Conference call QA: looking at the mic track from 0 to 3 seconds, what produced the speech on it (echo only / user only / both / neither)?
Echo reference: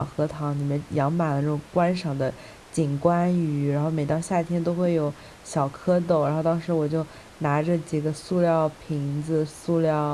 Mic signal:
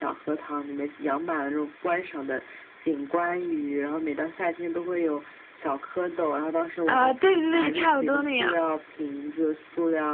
echo only